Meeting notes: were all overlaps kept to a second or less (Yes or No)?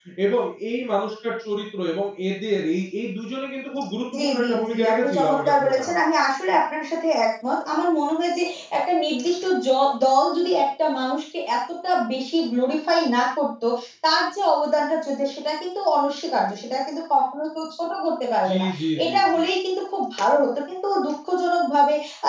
No